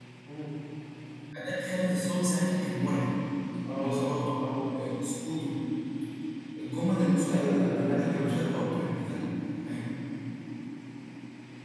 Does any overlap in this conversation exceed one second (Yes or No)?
Yes